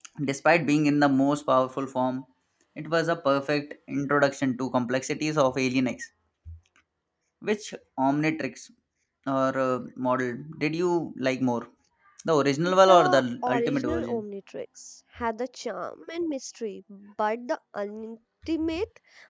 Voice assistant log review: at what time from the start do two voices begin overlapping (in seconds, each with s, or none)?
12.6 s